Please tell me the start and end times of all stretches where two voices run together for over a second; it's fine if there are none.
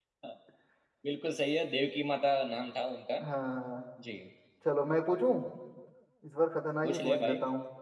none

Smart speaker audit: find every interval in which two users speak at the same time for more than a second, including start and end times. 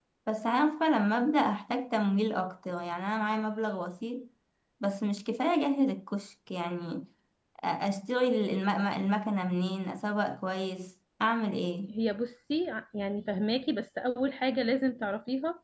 none

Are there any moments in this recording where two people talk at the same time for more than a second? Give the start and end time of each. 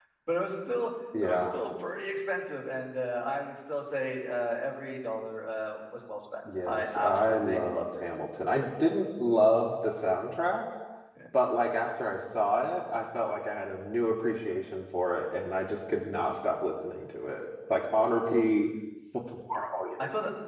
6.6-8.0

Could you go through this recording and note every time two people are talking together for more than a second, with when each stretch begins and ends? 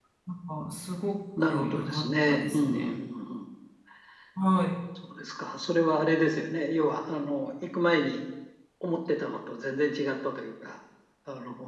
1.4-2.9

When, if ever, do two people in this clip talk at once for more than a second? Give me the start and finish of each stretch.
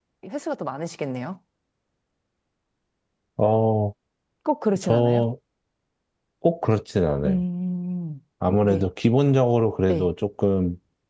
none

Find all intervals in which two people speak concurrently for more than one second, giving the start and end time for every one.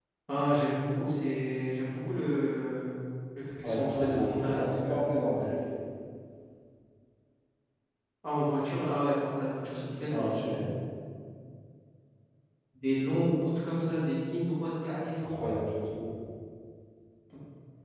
3.6-4.9

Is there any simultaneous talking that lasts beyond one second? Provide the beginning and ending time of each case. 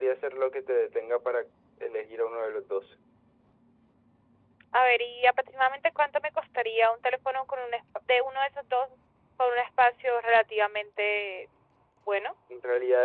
none

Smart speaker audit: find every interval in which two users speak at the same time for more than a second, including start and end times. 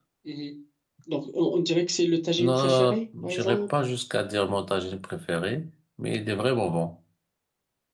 2.4-3.6

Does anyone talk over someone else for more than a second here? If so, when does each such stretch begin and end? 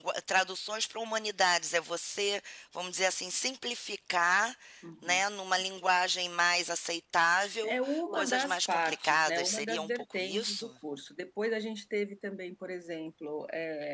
7.6-10.7

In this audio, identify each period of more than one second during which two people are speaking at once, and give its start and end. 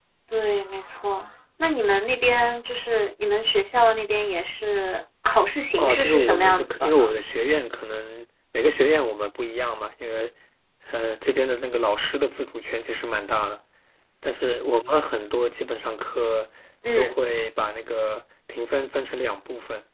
5.8-7.1

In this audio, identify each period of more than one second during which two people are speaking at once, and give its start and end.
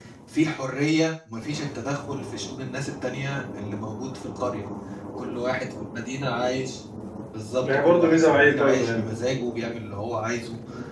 7.7-9.1

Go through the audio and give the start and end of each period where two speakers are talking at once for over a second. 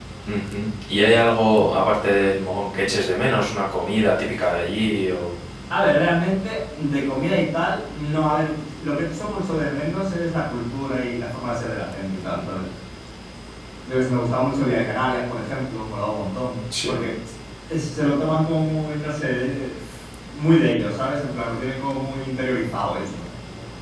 none

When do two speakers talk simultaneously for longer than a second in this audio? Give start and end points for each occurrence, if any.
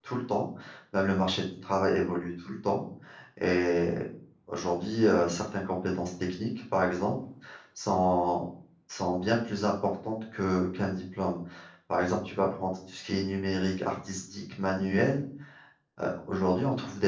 none

